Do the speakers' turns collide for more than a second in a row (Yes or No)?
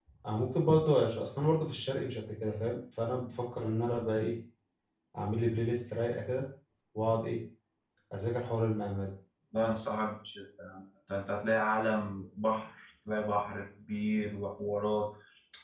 No